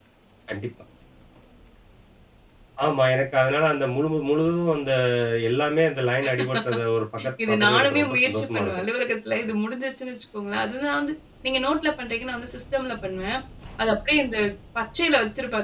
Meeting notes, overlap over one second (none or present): present